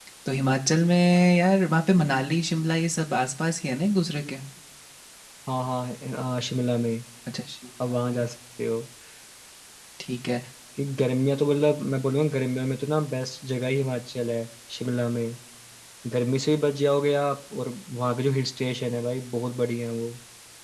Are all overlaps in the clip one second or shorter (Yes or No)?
Yes